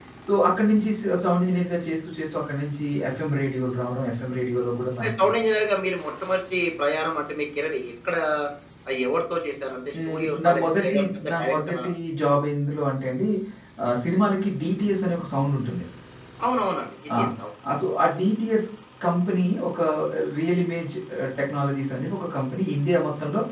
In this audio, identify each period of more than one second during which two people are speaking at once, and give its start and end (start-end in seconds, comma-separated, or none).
10.1-11.8